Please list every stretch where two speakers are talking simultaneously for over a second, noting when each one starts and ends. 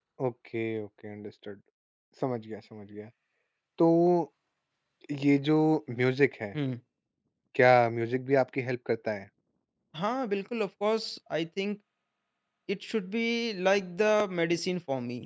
none

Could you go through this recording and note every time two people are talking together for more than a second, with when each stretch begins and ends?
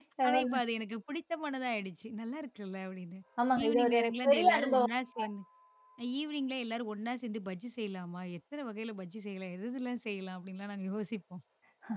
3.6-4.9

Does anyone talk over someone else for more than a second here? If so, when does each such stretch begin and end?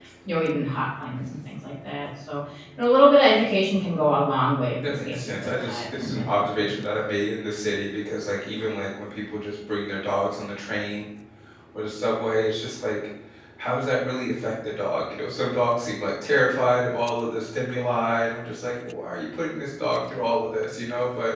4.8-6.7

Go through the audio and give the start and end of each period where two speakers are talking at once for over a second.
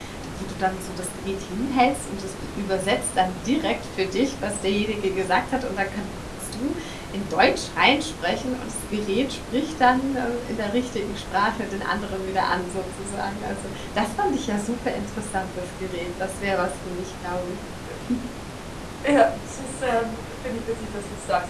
none

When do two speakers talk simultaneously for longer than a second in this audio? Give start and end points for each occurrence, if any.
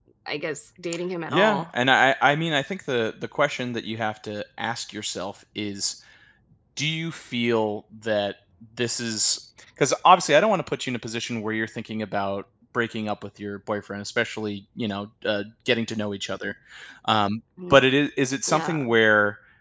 none

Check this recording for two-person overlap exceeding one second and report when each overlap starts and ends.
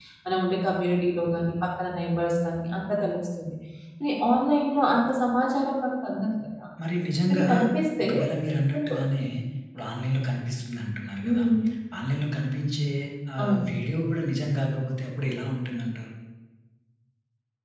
none

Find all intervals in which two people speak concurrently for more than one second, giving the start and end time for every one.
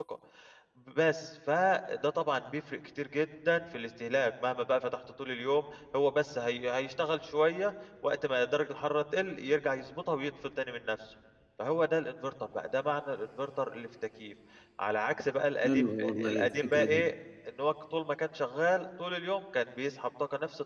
15.6-17.0

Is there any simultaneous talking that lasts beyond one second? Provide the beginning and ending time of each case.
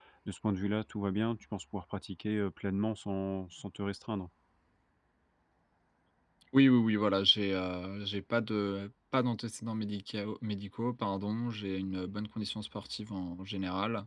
none

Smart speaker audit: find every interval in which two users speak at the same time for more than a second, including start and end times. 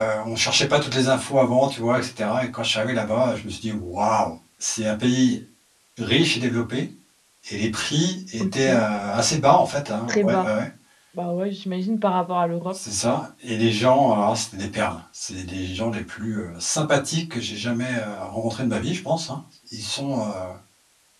none

